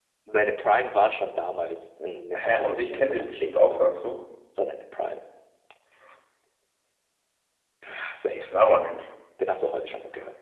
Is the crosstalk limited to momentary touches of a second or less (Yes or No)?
No